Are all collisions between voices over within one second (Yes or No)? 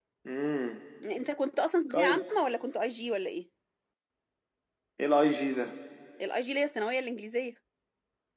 Yes